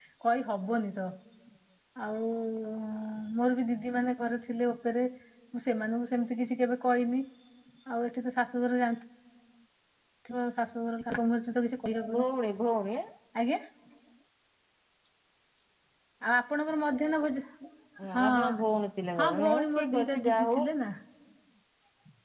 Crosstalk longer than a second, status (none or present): present